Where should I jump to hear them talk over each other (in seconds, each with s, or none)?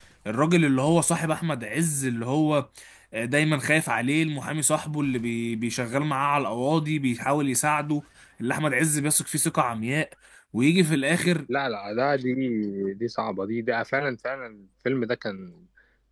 none